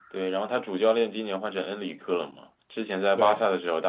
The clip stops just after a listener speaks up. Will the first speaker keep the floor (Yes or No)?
Yes